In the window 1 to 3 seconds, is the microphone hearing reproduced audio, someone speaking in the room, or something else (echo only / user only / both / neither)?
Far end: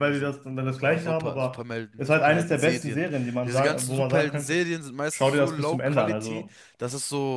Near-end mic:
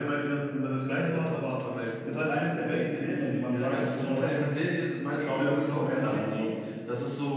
echo only